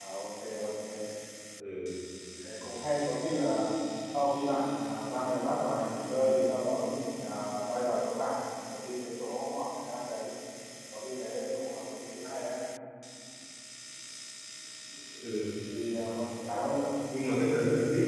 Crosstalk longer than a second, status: none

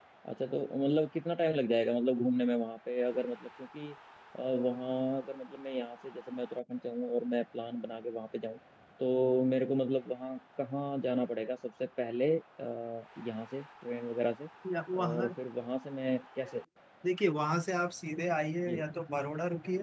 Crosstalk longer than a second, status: none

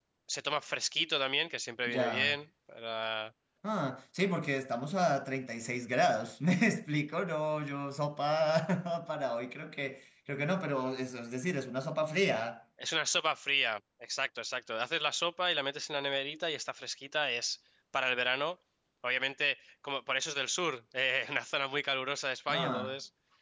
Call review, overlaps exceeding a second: none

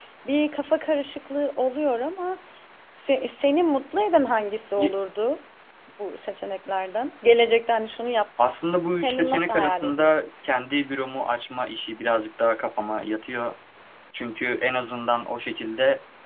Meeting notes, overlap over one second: present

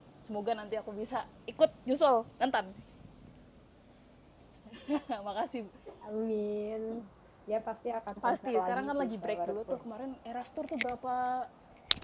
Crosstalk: present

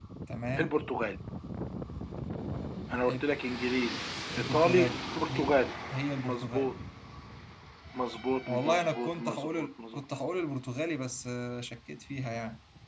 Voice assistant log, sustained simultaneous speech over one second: present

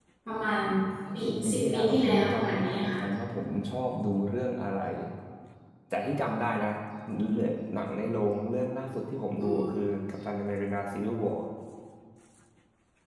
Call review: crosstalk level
present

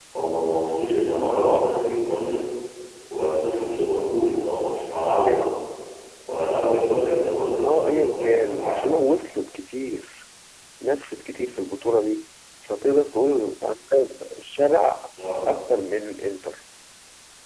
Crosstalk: present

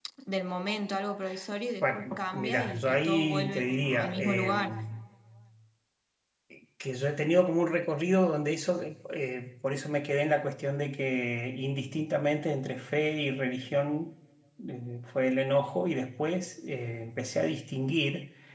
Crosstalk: present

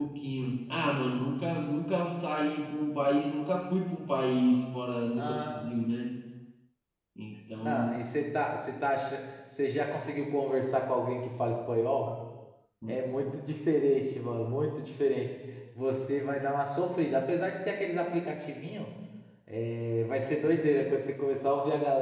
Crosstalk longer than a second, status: none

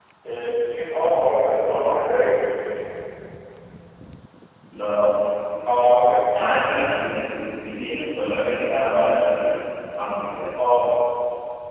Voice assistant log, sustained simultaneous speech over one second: none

